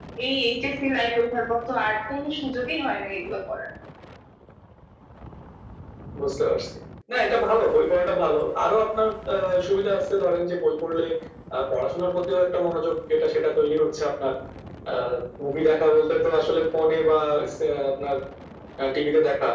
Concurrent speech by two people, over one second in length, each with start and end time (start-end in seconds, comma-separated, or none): none